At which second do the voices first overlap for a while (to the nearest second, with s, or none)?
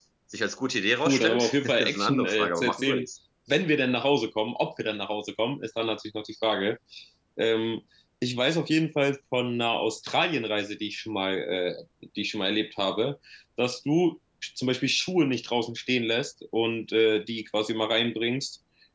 1 s